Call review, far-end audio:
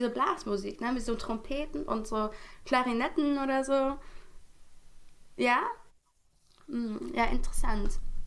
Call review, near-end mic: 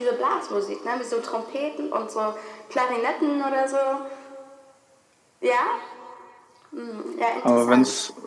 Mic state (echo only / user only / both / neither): both